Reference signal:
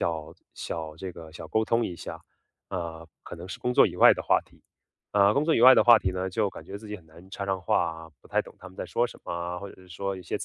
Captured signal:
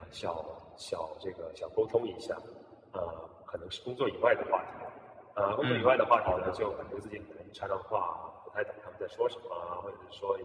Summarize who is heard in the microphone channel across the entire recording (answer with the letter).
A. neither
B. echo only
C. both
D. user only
C